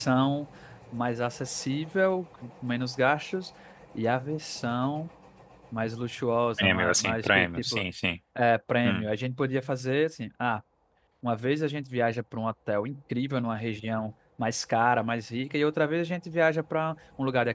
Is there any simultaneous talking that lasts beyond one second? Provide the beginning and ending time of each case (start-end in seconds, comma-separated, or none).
6.6-7.8